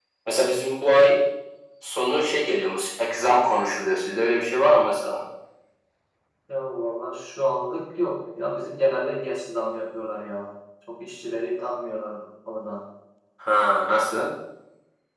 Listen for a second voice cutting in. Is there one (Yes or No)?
No